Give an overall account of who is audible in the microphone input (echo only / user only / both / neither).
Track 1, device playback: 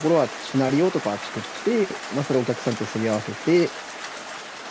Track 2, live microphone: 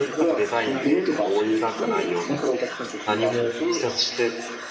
both